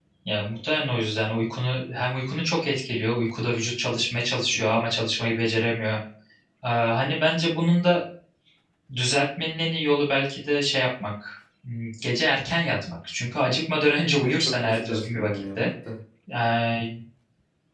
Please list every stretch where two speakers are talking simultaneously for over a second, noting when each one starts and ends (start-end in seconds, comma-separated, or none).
14.2-15.7